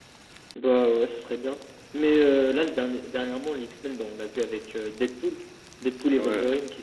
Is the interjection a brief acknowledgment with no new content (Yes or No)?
No